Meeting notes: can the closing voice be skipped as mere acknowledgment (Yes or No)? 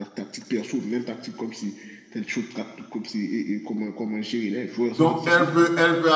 No